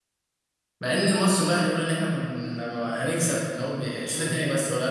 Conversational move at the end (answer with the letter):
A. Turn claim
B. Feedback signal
B